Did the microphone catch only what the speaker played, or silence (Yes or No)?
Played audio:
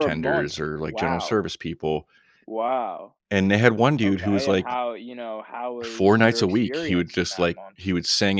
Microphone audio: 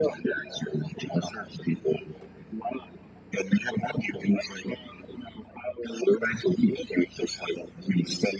Yes